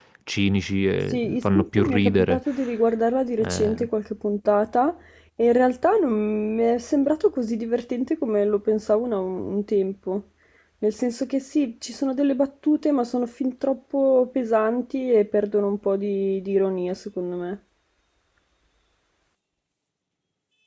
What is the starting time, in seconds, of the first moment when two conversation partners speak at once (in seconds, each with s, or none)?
1.1 s